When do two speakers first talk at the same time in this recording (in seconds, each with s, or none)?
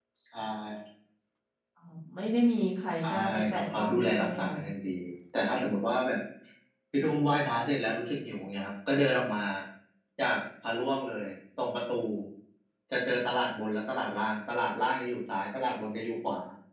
3.0 s